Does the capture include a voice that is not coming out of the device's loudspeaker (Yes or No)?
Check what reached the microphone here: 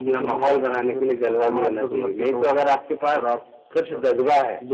No